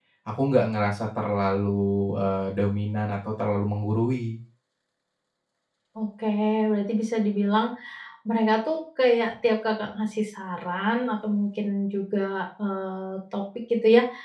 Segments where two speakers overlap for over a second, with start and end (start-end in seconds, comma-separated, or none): none